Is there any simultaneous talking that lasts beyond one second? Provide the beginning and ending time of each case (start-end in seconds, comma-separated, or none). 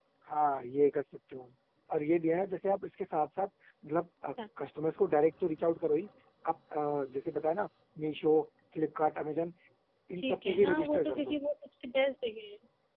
10.2-11.4